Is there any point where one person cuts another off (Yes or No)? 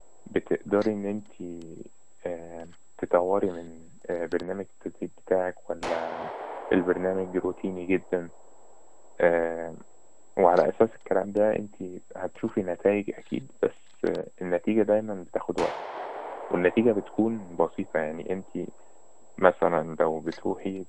No